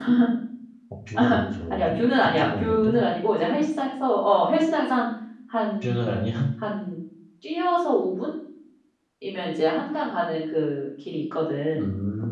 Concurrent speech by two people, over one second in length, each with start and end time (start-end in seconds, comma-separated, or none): 1.7-3.0